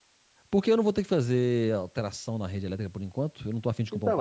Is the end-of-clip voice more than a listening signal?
Yes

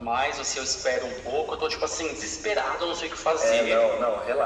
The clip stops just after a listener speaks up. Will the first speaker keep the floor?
No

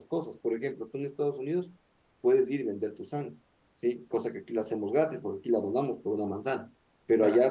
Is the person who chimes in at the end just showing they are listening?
Yes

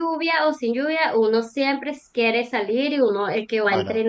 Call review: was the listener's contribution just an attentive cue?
Yes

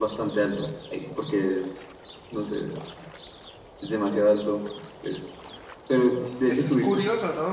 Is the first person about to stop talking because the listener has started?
Yes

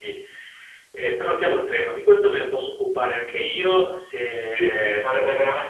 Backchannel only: No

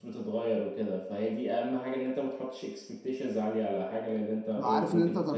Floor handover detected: Yes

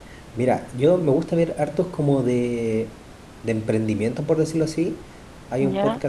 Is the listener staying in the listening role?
Yes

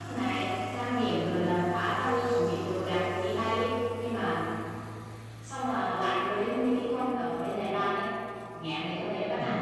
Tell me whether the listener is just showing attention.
No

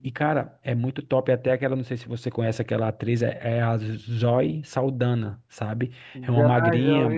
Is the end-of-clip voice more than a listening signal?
Yes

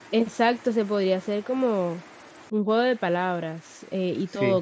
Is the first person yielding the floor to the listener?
No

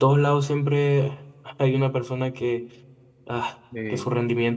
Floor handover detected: No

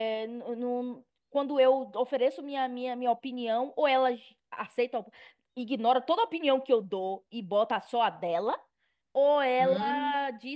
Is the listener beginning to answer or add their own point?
No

